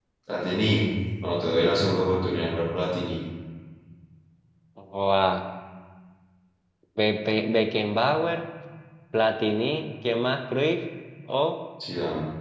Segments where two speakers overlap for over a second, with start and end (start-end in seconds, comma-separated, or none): none